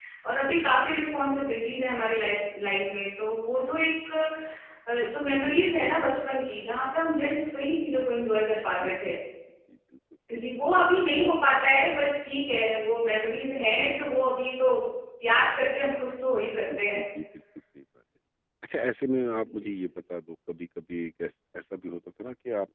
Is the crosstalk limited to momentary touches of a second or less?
Yes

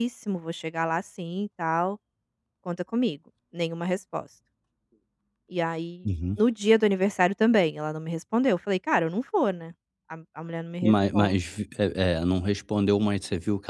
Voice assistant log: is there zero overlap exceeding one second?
Yes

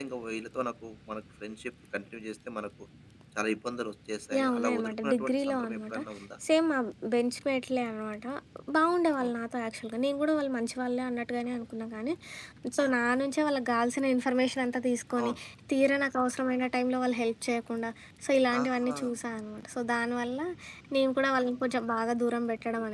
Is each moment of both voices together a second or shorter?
No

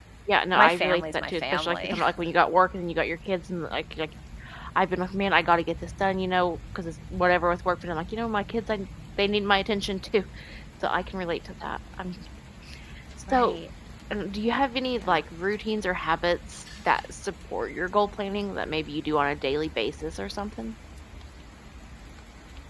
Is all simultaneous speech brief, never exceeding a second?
No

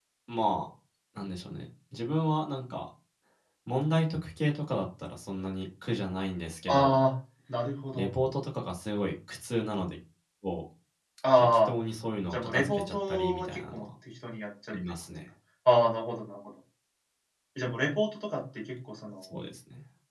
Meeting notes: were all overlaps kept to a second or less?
No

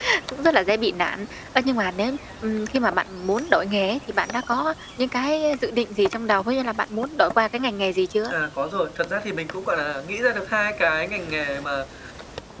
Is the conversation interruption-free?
Yes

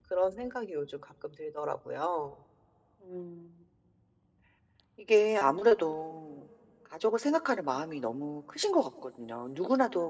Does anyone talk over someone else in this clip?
No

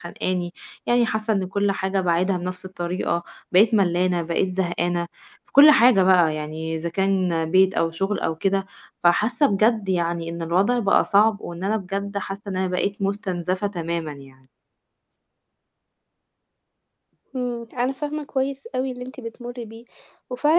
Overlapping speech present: No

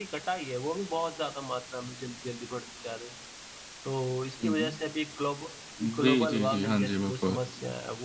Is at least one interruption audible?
Yes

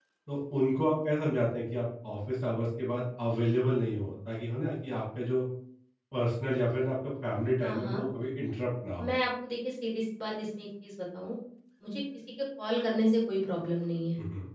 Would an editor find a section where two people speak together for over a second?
No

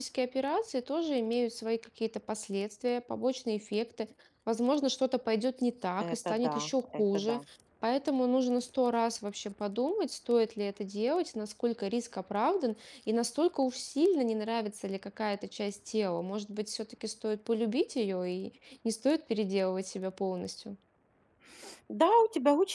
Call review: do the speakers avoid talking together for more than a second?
No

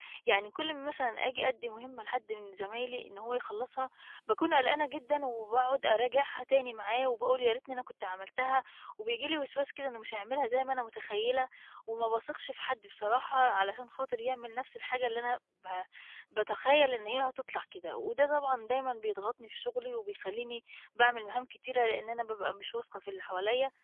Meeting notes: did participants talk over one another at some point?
No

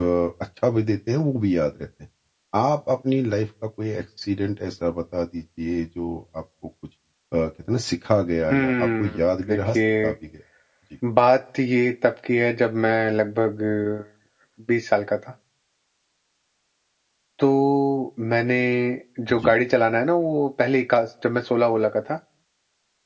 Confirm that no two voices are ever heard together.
No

